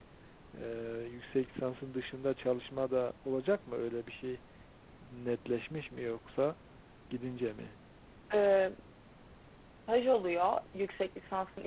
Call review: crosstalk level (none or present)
none